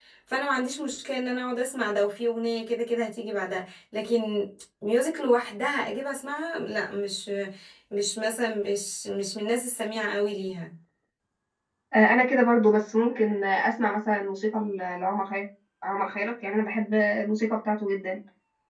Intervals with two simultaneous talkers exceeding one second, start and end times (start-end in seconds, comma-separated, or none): none